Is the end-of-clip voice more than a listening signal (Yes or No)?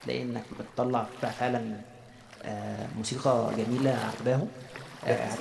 No